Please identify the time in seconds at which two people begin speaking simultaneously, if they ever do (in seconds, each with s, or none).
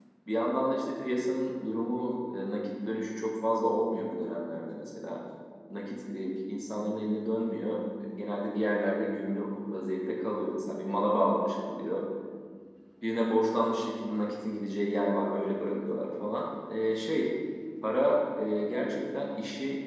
none